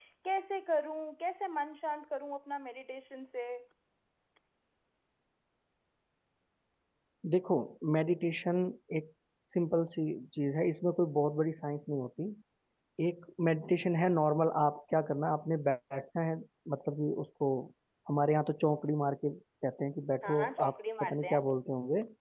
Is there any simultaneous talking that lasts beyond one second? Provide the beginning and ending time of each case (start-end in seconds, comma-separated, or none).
20.2-21.4